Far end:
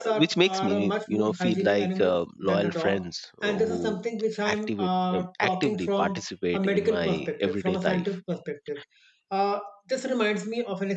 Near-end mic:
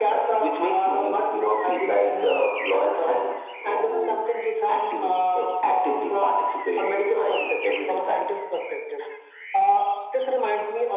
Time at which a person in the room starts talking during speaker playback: none

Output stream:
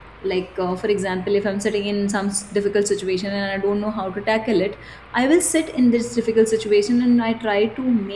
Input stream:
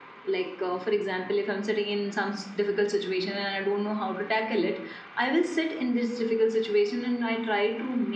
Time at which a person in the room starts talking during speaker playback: none

